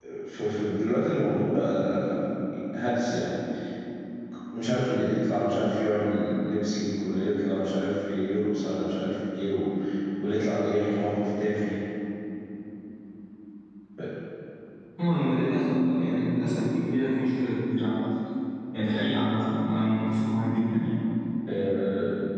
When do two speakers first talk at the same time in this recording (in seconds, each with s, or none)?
none